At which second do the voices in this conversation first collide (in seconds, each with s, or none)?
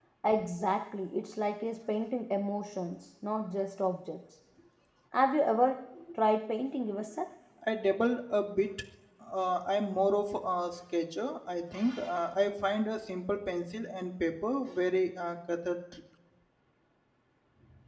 none